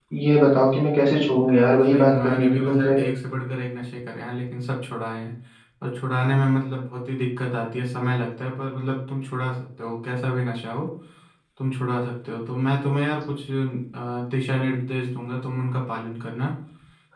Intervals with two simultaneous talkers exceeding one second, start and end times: 1.5-3.0

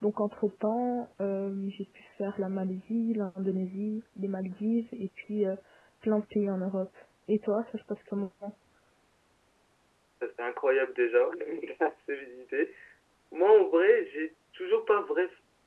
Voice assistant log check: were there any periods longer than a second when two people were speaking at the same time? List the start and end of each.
none

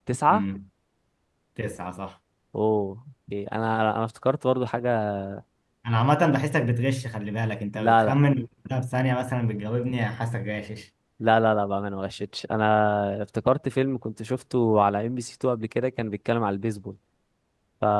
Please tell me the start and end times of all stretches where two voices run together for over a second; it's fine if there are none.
none

